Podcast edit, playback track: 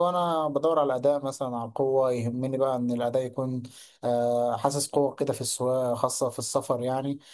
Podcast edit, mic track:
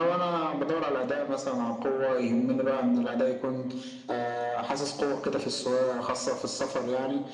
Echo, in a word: present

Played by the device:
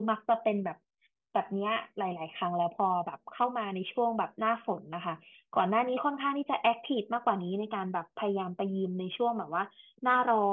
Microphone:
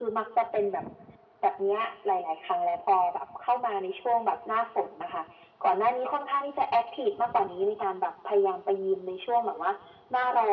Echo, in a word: present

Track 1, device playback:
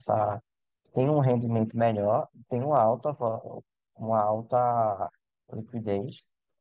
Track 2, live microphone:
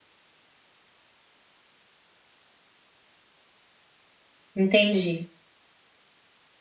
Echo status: none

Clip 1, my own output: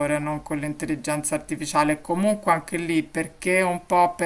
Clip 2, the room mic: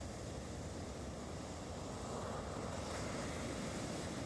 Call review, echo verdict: none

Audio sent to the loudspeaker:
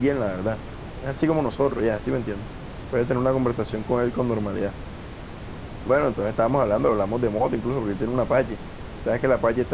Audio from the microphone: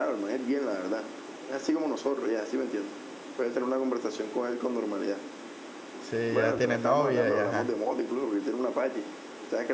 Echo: present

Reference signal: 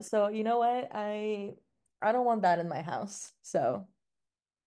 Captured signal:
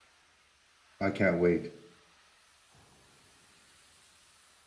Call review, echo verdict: none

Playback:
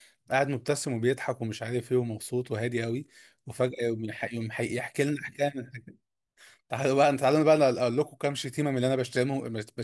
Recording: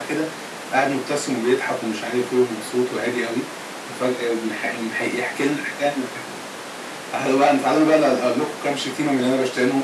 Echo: present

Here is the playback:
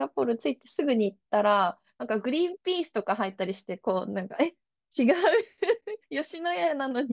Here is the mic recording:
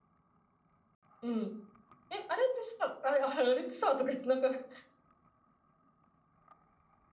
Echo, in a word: none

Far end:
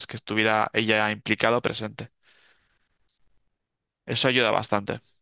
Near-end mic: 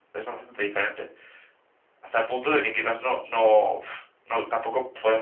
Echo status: none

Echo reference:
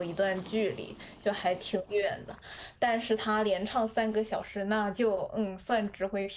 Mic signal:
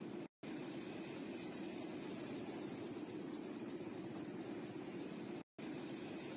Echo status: none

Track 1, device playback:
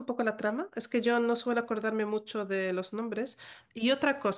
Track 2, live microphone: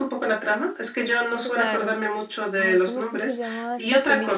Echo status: present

